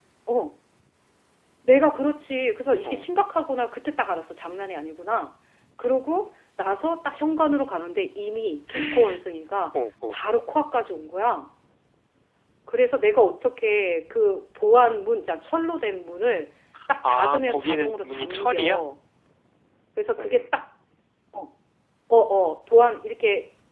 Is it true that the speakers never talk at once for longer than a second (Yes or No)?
No